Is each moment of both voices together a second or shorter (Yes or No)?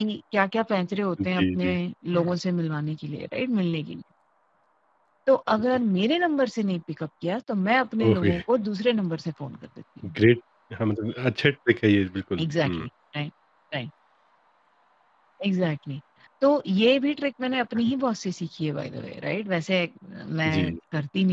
Yes